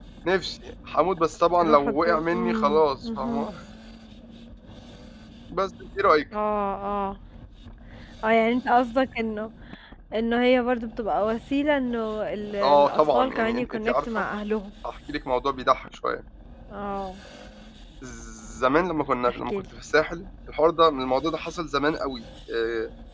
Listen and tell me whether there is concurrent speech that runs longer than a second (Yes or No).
Yes